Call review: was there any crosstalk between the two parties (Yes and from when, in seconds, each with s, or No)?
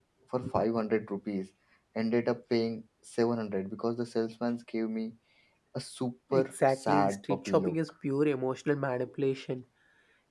Yes, from 6.3 s